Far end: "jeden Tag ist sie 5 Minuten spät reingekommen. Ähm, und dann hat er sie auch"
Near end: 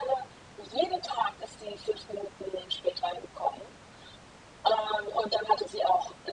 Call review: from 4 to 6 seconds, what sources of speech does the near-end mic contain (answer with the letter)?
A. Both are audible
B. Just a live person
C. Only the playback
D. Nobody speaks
C